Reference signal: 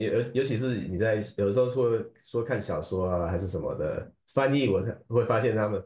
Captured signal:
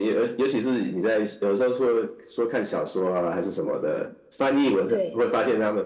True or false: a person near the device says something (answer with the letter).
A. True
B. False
A